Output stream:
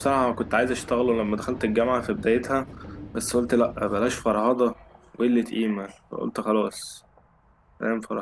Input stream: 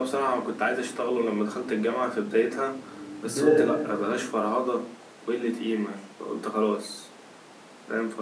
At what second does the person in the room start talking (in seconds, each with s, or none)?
3.2 s